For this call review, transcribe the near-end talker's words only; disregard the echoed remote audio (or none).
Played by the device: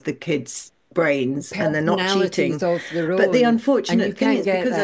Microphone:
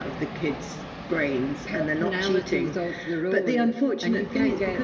none